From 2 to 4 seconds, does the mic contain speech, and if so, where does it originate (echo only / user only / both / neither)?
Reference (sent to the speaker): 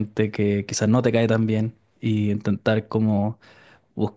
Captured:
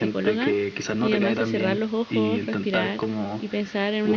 both